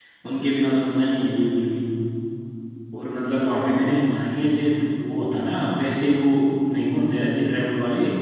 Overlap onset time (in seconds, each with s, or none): none